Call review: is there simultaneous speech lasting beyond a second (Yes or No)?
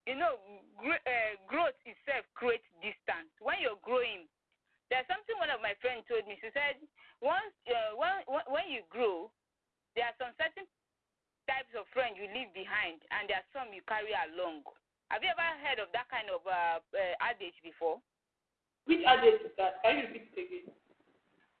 No